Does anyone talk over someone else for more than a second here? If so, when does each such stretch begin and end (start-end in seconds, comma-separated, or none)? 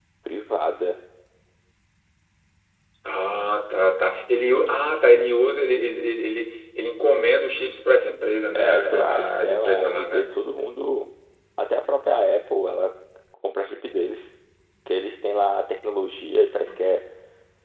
8.5-10.2